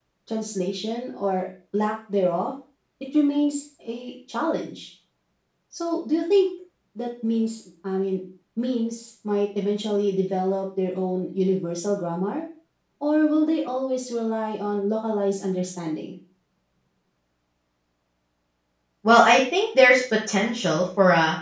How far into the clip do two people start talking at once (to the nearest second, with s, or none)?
none